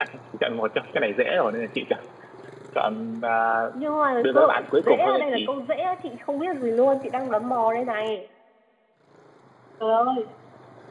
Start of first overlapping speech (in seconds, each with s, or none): 4.2 s